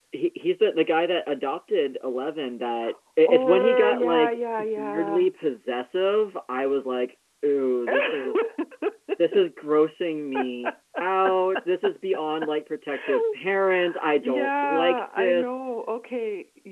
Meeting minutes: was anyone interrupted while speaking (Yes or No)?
Yes